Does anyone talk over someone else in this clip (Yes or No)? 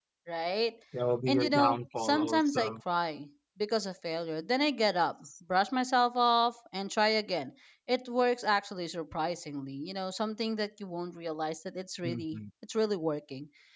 Yes